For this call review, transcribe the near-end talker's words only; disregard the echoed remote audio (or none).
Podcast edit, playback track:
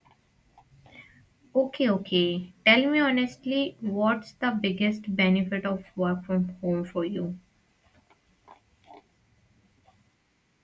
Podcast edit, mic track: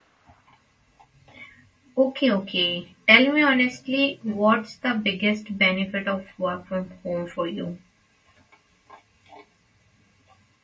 none